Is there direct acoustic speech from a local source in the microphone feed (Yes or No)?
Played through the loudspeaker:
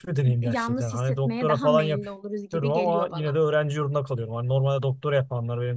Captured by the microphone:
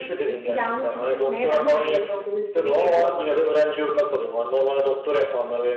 No